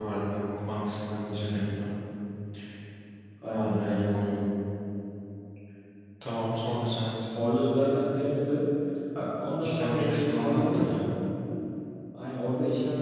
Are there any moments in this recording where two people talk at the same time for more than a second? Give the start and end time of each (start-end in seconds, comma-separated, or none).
9.6-10.8